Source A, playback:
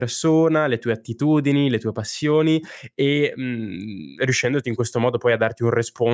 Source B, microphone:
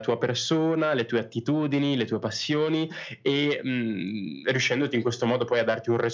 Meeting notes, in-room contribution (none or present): none